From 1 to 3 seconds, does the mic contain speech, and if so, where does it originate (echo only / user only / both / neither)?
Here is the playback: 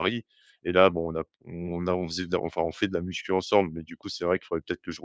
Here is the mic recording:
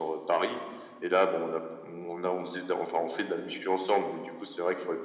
echo only